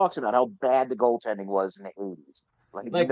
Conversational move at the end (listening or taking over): taking over